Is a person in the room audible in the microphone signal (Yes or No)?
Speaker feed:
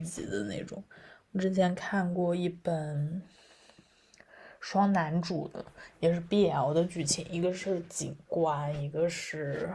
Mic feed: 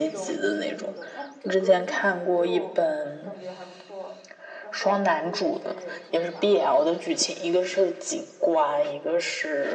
Yes